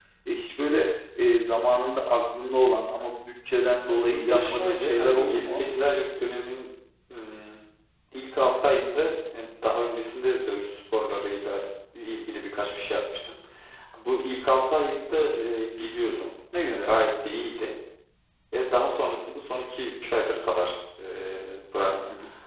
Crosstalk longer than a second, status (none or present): present